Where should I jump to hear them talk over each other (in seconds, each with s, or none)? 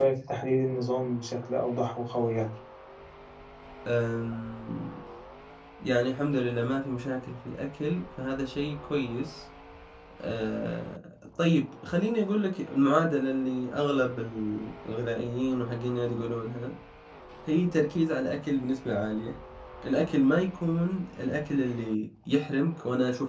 none